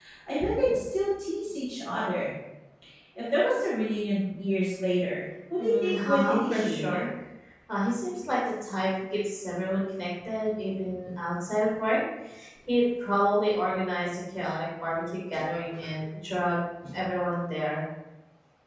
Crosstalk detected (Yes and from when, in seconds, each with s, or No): Yes, from 5.6 s